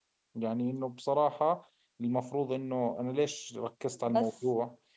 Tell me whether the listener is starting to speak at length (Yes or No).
No